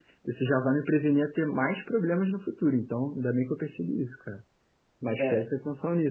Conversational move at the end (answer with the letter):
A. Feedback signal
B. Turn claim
A